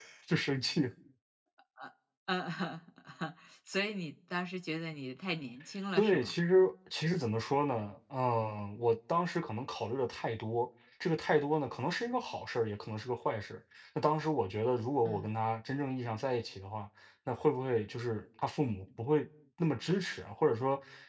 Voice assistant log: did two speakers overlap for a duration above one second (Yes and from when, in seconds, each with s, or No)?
No